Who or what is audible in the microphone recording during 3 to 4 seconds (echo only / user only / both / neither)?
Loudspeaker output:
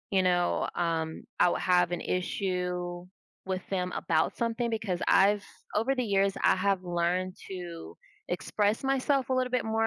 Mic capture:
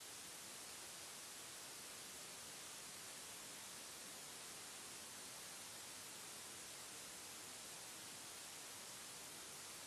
neither